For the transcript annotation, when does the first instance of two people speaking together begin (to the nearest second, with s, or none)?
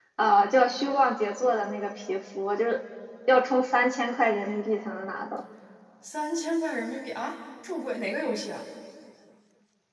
none